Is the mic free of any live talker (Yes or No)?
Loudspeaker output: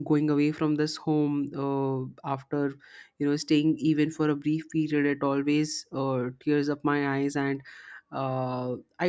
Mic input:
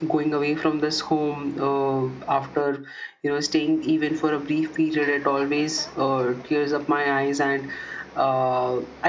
Yes